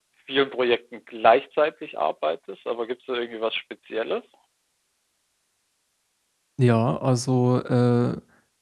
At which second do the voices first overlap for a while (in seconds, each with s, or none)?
none